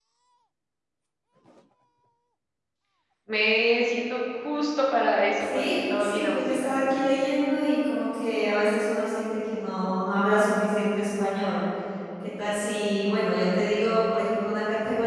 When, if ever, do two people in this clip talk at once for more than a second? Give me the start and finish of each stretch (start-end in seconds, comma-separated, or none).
5.4-6.7